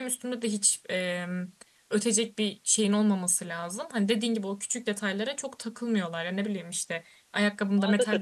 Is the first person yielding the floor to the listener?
No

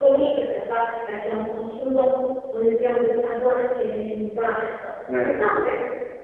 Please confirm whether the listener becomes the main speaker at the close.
No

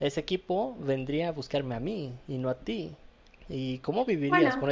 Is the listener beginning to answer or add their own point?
No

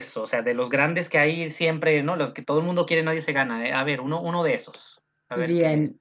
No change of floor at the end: No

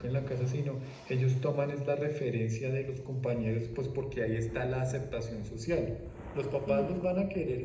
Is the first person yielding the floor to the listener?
No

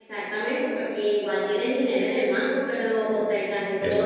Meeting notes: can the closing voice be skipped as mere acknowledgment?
Yes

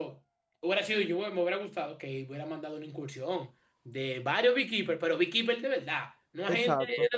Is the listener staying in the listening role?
No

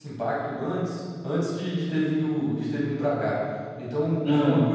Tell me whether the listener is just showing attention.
Yes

